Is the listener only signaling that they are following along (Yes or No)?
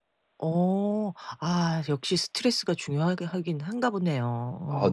No